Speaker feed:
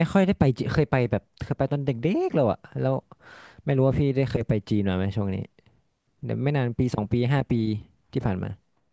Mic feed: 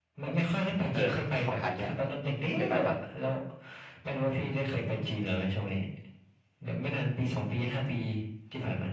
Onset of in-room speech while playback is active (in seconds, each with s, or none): 0.9 s